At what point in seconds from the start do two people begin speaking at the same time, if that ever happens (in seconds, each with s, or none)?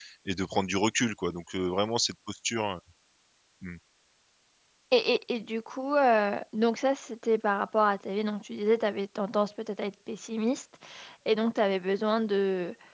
none